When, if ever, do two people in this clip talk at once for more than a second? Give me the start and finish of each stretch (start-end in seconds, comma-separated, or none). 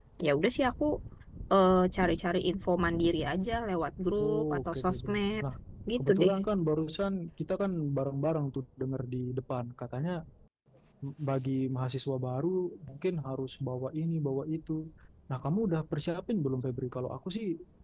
4.2-5.4